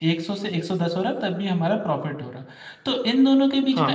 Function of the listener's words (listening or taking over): listening